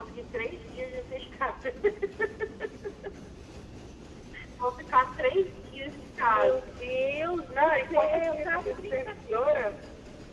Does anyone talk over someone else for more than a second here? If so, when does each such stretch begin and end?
7.5-9.6

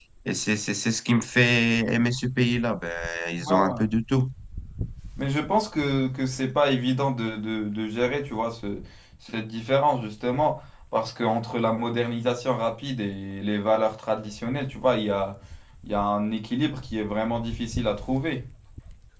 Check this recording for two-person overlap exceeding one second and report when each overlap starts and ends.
none

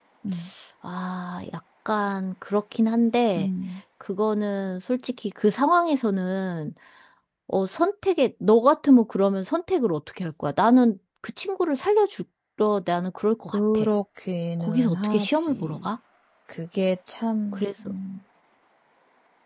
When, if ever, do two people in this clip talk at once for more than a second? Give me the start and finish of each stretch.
14.6-15.9

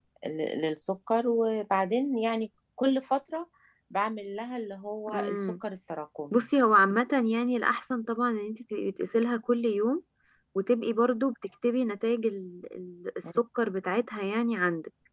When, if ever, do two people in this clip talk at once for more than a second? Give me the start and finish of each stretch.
none

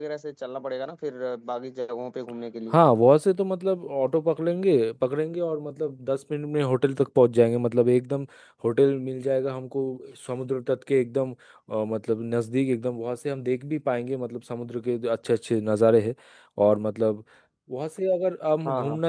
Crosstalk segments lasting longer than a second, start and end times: none

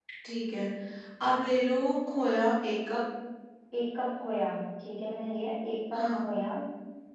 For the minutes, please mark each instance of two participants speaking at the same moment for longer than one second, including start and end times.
none

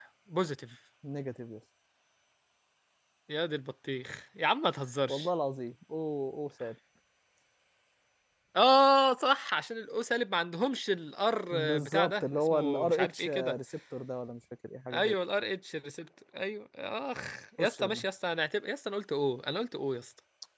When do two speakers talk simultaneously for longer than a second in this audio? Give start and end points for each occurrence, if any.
11.5-13.6

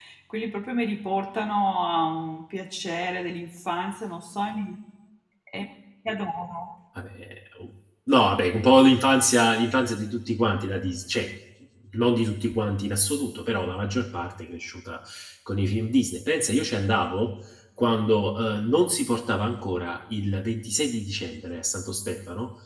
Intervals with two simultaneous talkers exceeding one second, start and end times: none

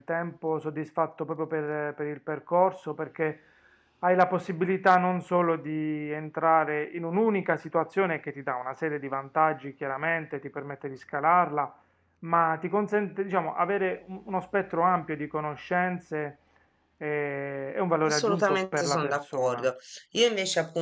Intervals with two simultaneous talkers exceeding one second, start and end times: 18.0-19.7

